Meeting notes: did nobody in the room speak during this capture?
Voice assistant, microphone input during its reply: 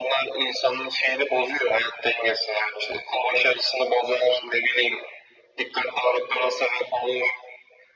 Yes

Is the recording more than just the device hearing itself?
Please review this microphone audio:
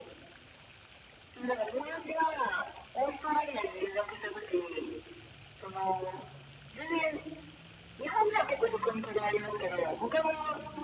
No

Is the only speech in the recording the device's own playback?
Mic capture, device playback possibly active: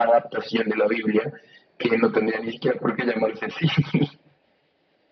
Yes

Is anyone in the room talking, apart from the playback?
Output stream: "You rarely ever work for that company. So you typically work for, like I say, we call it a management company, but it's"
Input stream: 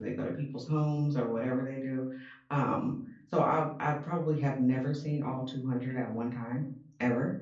Yes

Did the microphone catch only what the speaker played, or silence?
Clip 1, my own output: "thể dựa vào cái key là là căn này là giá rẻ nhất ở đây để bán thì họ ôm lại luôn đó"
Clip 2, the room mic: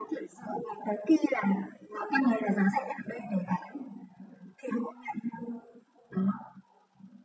Yes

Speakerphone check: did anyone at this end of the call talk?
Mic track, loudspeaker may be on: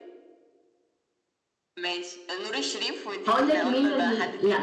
Yes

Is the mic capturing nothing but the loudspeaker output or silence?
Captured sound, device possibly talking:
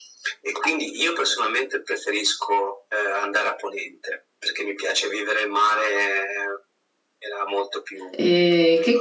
No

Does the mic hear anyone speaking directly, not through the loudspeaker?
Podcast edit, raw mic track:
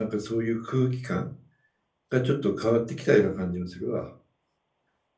Yes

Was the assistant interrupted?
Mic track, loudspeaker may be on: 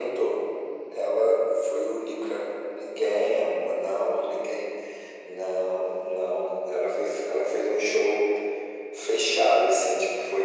No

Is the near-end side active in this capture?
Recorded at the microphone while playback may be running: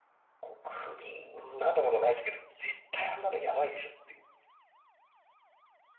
No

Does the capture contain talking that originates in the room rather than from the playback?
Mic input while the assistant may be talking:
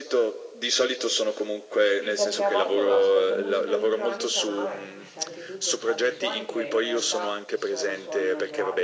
Yes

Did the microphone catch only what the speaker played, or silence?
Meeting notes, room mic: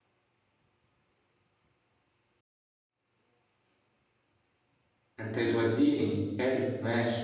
No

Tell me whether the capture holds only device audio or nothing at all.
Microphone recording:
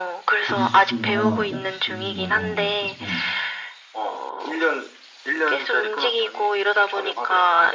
No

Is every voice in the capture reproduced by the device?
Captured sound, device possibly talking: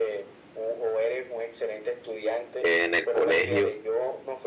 No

